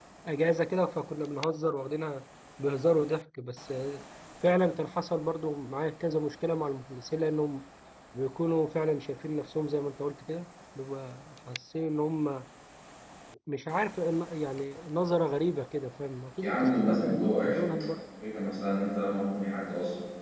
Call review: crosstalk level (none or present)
present